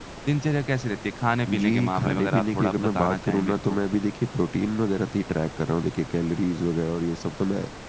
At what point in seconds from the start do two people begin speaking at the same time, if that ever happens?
1.5 s

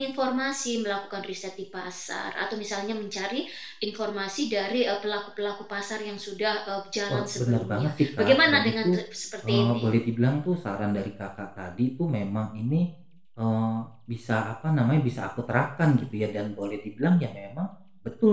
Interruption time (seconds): 7.1 s

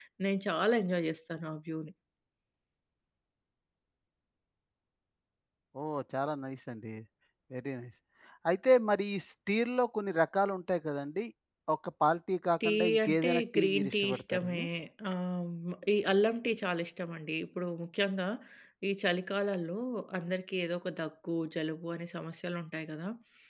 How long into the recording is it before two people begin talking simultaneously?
12.6 s

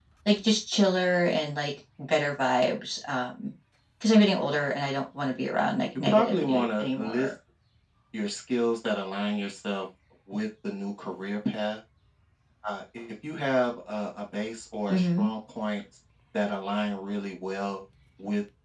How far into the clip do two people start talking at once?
6.0 s

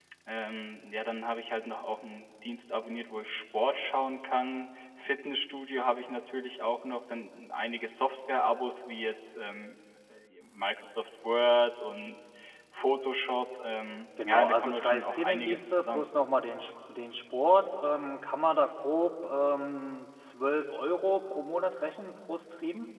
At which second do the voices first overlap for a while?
14.2 s

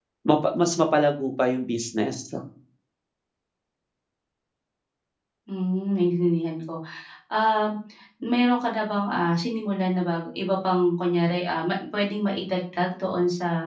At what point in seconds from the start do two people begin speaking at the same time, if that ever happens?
none

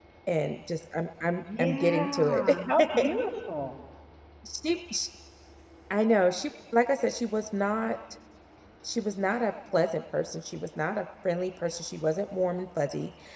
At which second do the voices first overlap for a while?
1.4 s

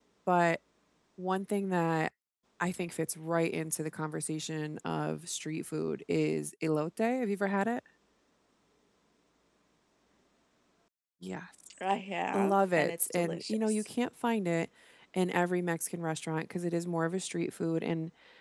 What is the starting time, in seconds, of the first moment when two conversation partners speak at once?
12.3 s

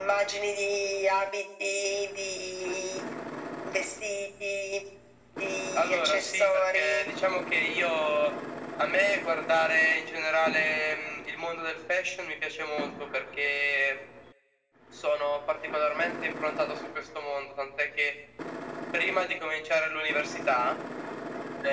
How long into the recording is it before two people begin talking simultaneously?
5.8 s

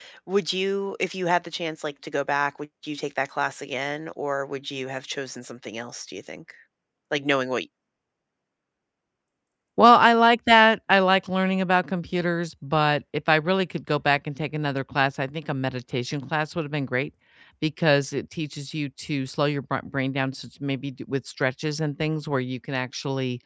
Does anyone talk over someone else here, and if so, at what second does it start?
none

